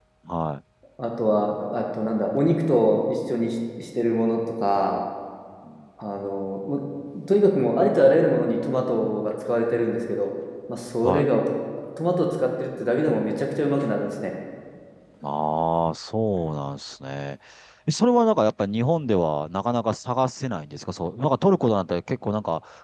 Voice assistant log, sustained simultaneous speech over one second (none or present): none